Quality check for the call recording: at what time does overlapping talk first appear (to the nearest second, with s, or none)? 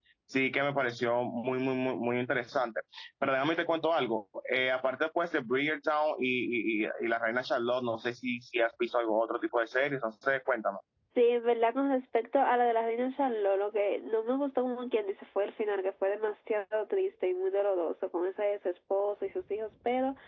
none